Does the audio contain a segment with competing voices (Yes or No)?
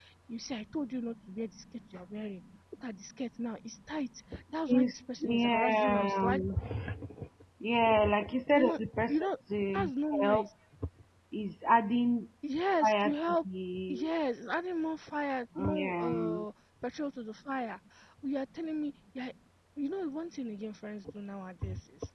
Yes